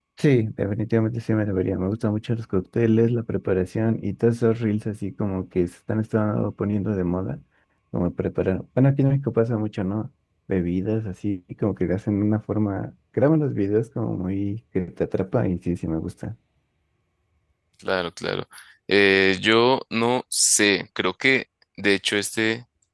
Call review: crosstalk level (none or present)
none